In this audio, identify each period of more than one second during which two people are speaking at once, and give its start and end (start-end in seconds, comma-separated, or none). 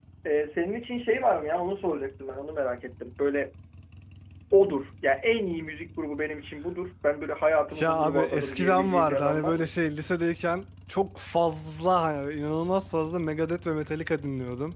7.8-9.7